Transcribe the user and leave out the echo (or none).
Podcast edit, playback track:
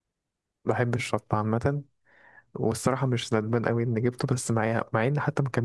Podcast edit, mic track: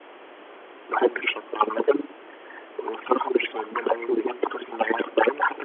none